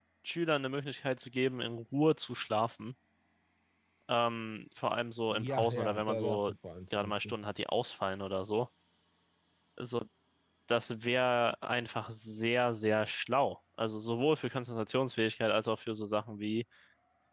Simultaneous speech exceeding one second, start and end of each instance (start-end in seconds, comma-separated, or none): 5.3-6.5